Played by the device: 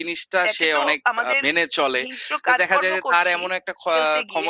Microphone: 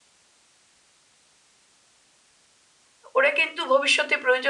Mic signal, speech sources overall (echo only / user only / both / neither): user only